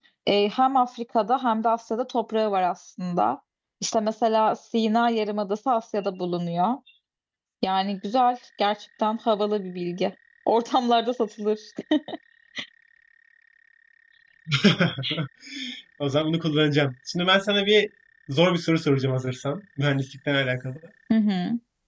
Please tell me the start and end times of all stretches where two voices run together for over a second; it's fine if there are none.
none

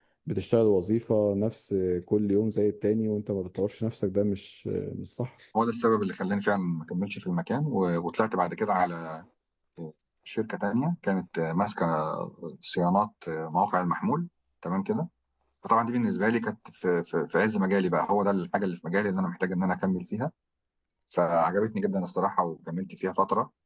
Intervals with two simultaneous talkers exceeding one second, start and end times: none

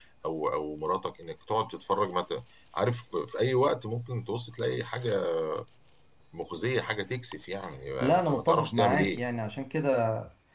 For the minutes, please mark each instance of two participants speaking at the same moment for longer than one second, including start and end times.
8.0-9.2

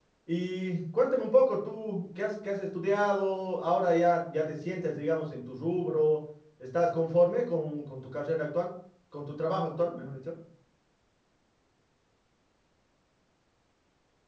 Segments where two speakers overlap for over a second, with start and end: none

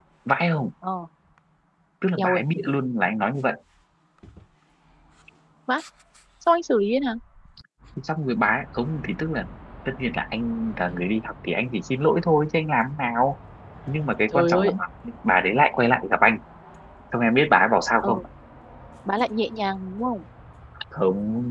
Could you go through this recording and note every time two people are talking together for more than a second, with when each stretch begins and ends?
none

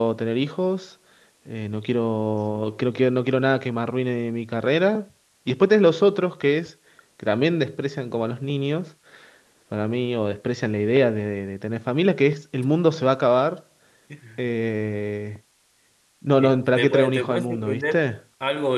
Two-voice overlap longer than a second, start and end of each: 16.4-18.1

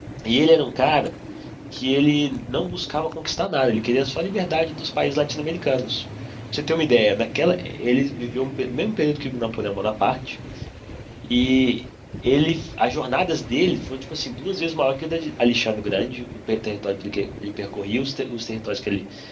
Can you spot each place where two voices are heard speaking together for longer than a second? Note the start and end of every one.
none

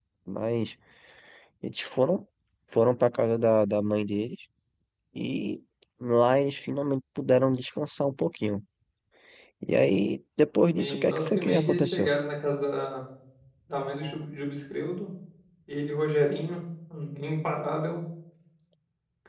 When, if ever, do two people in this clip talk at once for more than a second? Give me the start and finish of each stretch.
10.7-12.1

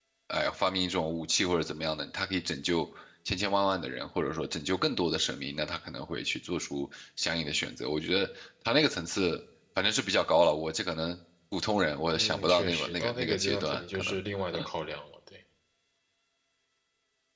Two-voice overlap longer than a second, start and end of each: 12.1-14.2

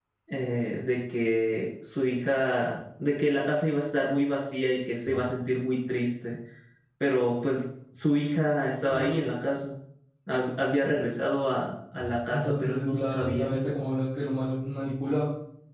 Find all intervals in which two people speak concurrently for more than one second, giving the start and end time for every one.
12.3-13.5

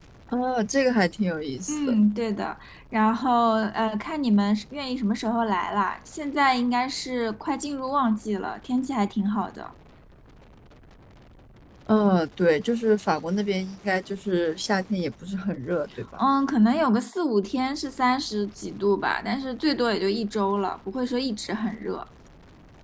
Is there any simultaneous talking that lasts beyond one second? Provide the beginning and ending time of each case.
none

